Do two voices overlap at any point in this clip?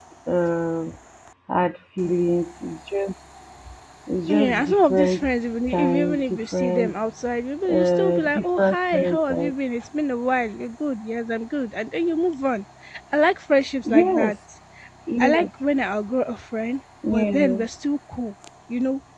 Yes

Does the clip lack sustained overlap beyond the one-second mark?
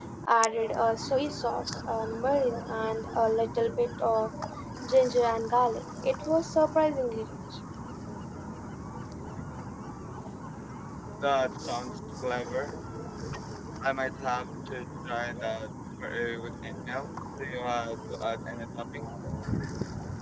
Yes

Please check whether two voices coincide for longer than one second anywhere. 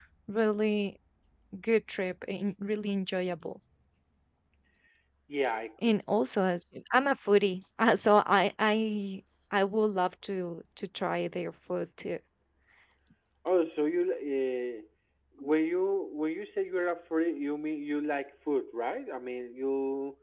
No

